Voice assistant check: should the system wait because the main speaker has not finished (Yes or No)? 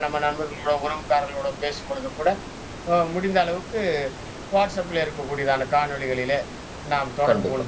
Yes